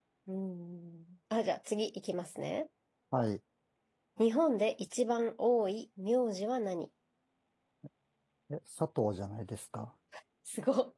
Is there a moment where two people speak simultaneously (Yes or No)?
No